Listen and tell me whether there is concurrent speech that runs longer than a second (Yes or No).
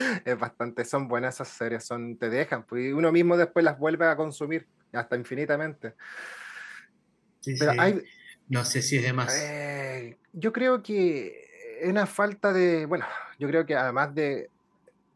No